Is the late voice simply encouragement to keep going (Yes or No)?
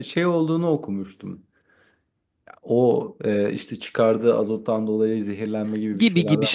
No